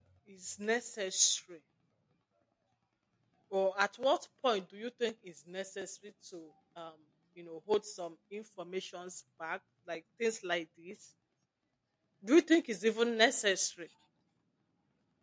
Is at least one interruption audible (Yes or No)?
No